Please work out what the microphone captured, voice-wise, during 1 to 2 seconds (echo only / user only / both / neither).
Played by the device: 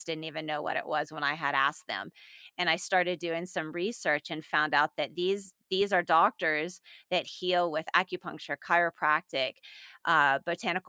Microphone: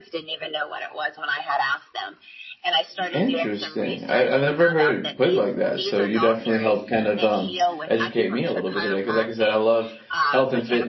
echo only